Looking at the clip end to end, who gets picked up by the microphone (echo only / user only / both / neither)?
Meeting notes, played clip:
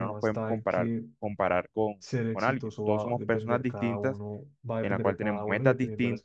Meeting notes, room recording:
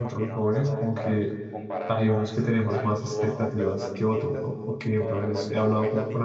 both